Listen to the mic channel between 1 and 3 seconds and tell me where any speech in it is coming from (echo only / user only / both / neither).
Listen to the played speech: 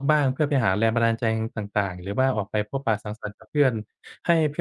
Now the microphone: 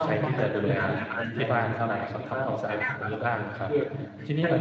both